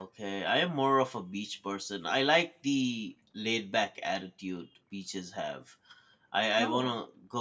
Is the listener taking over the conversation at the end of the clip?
No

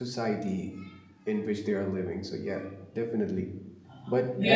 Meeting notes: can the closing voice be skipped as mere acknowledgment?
No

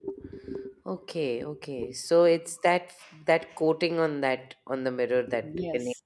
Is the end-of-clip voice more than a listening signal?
Yes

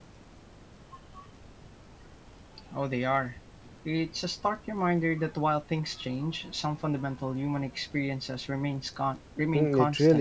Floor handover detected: Yes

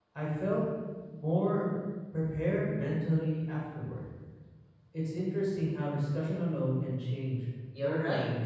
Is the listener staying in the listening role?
No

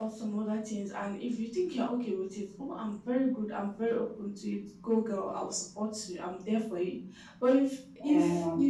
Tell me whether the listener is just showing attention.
Yes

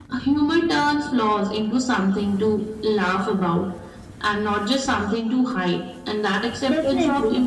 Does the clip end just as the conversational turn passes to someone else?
No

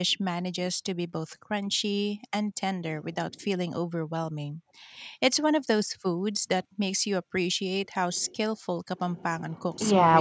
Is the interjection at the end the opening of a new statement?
Yes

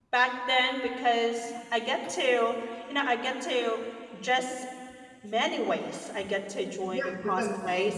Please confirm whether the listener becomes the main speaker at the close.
Yes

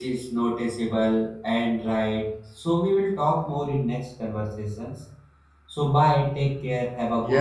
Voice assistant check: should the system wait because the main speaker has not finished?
No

